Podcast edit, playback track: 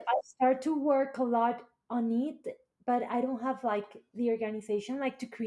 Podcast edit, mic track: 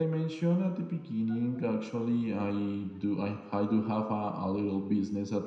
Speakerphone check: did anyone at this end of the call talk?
Yes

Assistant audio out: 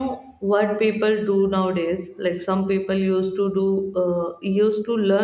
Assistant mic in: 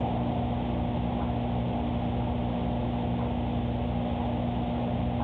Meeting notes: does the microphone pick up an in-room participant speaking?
No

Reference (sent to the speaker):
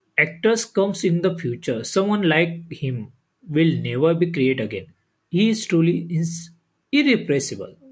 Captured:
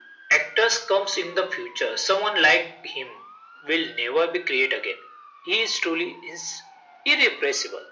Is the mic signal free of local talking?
Yes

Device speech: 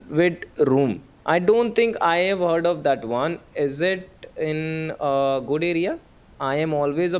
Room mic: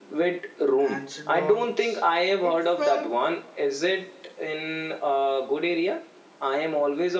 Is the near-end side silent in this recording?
No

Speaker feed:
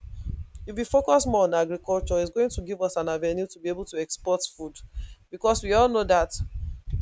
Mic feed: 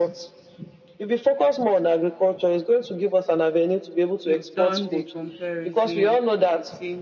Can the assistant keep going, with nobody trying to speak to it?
No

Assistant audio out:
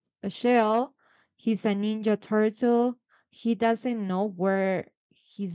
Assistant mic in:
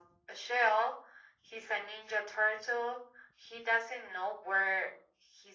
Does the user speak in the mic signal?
No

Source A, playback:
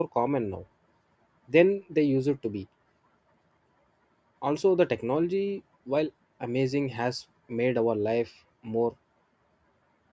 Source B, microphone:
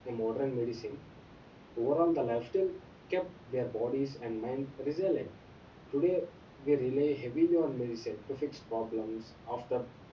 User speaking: Yes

